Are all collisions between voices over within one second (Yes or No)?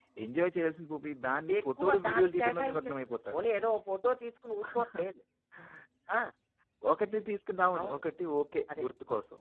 No